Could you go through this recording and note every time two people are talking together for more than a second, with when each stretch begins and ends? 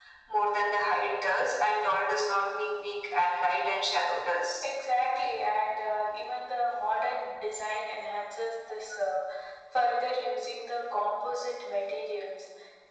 none

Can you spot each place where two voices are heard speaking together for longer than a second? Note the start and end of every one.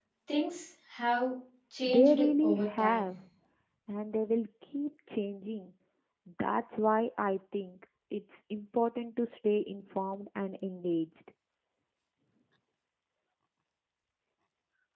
1.9-3.1

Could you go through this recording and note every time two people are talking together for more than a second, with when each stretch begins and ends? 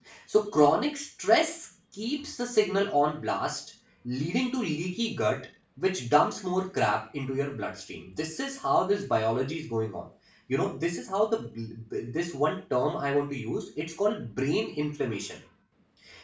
none

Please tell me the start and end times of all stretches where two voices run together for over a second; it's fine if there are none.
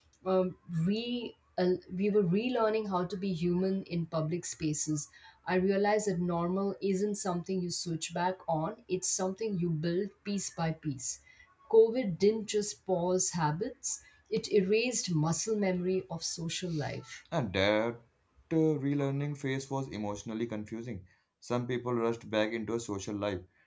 none

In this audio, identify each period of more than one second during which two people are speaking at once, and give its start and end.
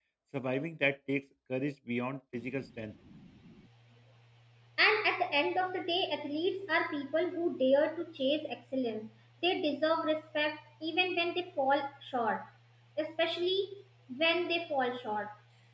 none

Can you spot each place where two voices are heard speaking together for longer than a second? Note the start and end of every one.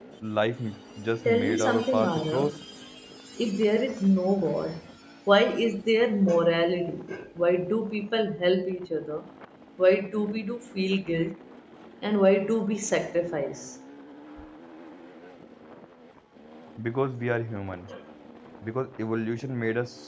1.2-2.5

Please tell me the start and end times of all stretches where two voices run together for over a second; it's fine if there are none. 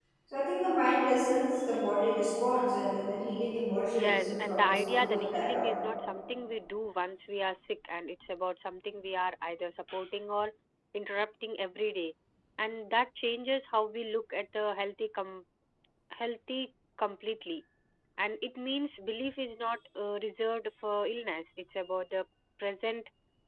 3.9-5.7

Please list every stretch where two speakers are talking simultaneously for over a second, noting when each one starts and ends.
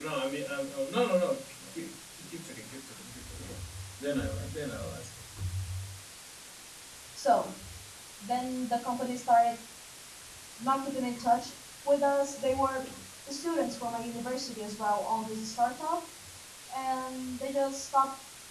none

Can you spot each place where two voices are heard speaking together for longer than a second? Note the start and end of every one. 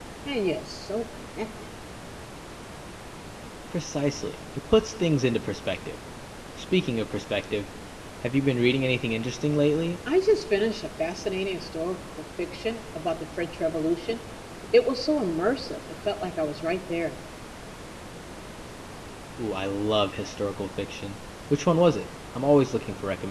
none

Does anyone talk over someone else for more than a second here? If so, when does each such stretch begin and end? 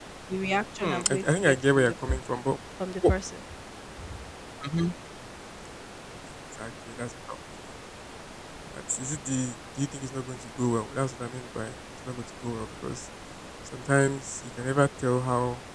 0.8-2.2

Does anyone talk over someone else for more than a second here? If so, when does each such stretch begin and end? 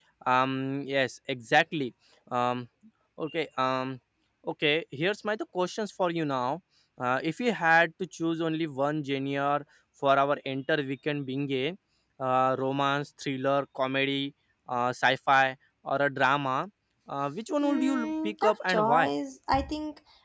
17.6-19.1

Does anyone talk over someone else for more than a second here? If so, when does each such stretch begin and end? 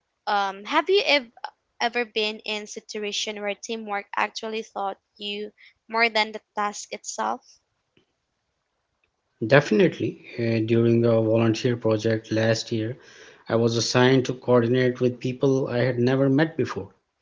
none

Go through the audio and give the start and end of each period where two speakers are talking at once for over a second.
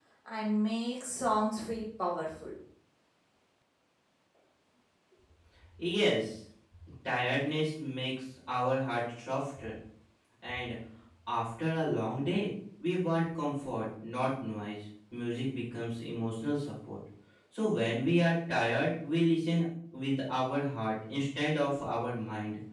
none

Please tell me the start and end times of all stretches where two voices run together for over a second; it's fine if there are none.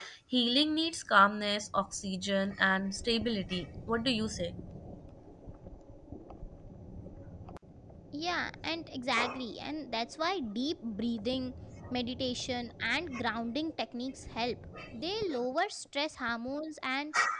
none

